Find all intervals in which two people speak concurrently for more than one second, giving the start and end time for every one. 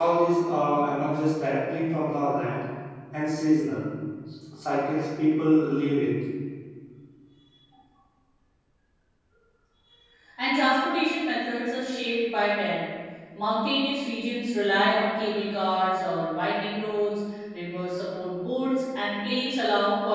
none

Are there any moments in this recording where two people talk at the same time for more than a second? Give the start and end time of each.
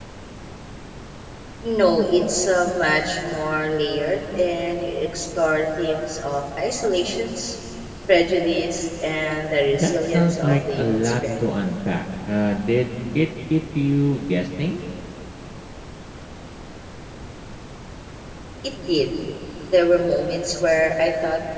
9.7-11.1

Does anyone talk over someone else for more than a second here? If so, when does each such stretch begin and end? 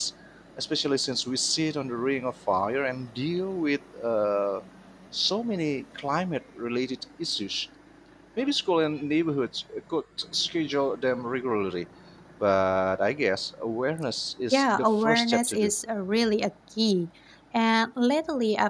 14.5-15.7

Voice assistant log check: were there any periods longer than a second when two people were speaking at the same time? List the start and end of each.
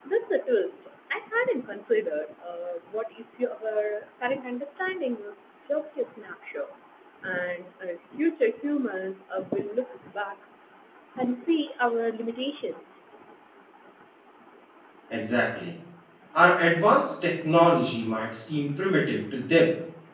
none

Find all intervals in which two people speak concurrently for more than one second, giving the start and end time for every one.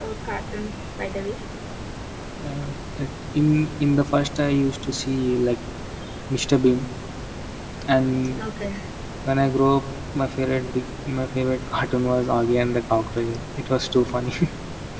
none

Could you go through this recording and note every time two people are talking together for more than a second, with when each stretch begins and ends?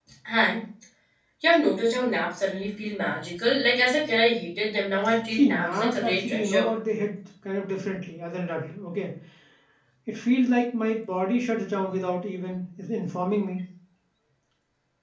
5.3-6.7

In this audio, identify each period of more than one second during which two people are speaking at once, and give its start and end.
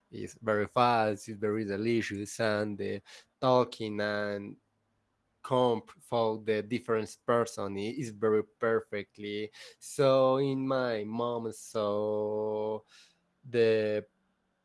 none

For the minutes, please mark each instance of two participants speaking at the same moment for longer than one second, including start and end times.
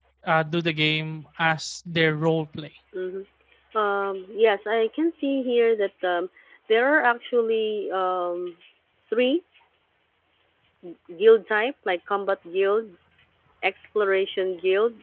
none

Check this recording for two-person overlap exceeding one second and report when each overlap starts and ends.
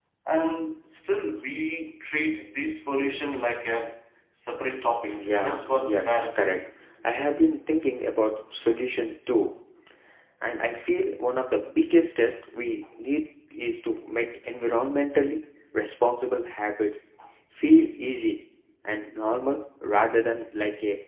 5.1-6.6

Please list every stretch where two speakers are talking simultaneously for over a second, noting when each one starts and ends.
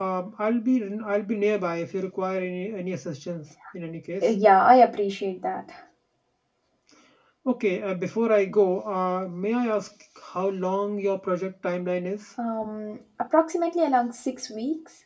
none

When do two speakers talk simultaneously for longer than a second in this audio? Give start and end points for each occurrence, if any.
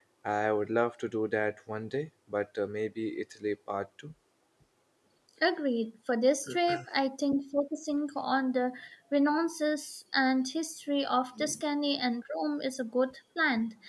none

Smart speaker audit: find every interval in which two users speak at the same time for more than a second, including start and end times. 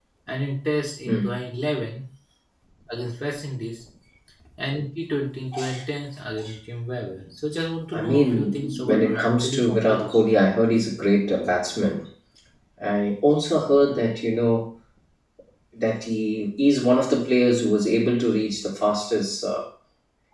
7.9-10.3

